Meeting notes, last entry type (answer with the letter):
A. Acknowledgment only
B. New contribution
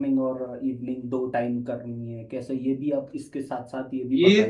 B